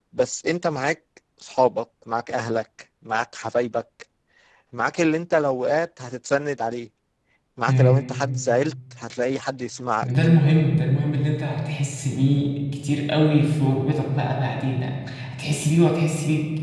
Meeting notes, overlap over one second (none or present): none